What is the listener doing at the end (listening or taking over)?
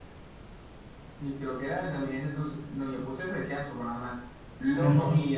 listening